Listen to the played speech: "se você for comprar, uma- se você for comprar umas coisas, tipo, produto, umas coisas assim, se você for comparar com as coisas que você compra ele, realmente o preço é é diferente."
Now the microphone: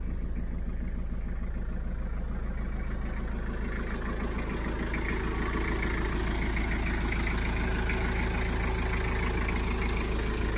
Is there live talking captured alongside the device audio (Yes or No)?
No